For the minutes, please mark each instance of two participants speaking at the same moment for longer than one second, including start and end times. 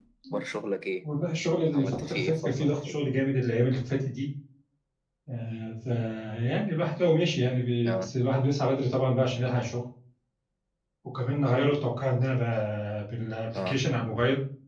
1.7-3.2

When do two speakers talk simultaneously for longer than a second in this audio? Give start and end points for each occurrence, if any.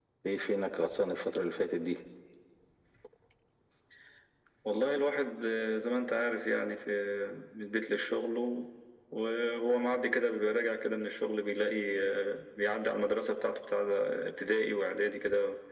none

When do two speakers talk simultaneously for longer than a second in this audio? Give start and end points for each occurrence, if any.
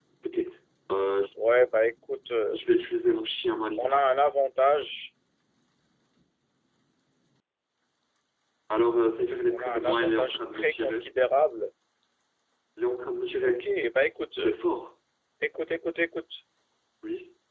9.5-11.1

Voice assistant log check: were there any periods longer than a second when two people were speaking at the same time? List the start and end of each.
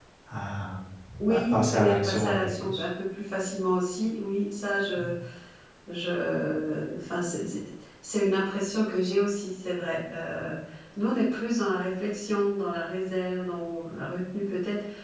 1.3-2.8

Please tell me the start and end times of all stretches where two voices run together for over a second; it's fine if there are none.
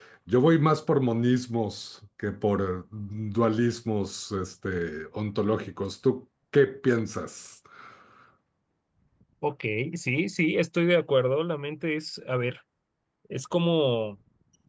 none

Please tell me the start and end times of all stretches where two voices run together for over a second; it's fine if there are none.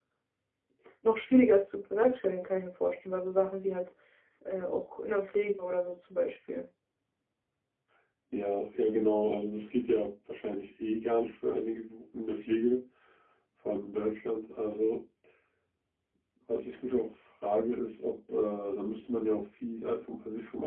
none

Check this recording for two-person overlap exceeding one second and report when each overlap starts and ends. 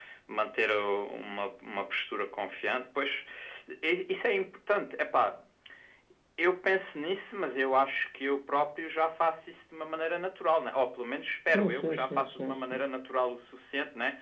11.5-12.8

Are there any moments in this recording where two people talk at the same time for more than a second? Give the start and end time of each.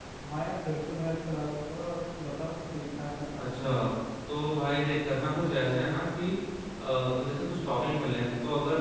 none

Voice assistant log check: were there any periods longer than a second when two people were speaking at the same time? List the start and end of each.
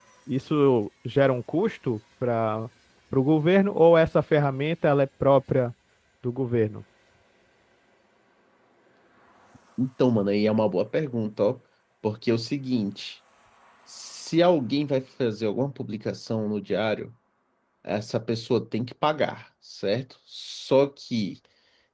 none

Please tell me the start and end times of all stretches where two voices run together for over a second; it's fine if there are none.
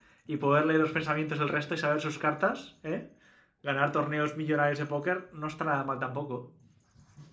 none

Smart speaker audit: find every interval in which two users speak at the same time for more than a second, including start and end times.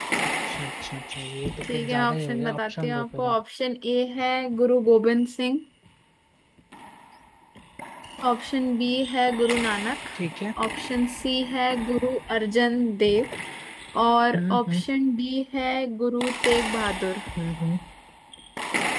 1.7-3.4

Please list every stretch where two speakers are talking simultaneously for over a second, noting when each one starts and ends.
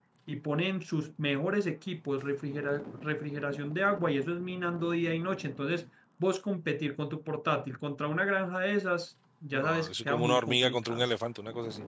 9.5-11.1

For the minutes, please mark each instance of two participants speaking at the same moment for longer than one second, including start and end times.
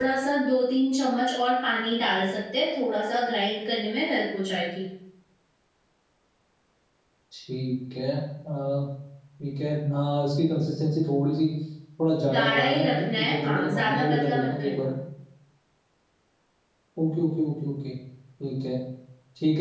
12.3-14.9

